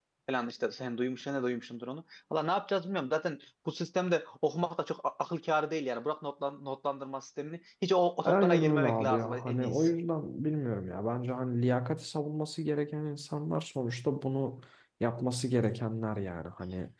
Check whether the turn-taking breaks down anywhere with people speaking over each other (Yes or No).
Yes